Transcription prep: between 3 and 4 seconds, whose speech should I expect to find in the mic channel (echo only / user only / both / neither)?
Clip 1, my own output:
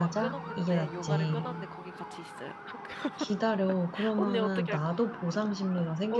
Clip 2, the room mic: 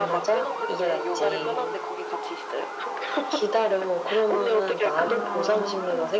echo only